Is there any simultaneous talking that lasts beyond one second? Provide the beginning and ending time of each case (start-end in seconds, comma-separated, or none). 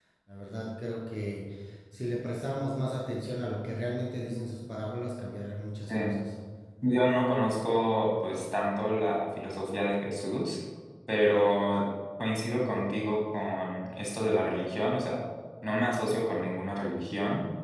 none